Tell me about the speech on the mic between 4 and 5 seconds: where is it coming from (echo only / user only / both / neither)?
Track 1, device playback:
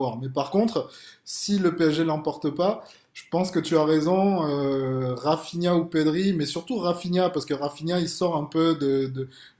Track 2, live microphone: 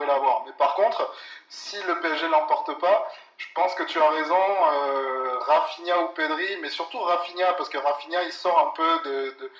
echo only